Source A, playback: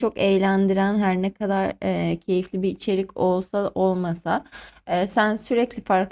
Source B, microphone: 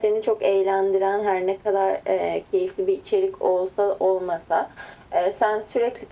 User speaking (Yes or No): No